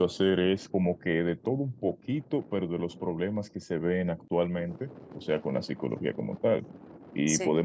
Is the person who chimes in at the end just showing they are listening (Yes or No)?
Yes